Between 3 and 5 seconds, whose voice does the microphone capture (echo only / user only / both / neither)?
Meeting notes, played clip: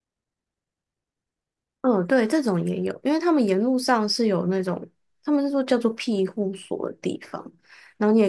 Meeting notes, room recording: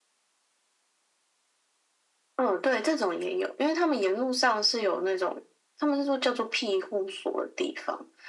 echo only